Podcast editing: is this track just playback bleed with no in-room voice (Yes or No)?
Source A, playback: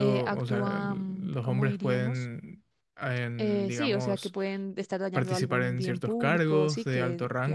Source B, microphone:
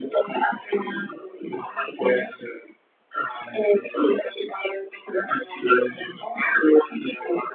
Yes